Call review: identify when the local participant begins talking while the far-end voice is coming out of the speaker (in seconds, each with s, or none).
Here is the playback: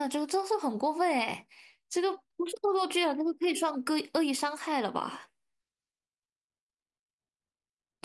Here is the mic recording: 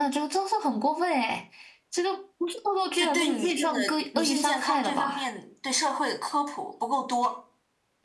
3.0 s